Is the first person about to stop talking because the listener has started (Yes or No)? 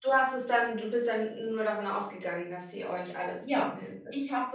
Yes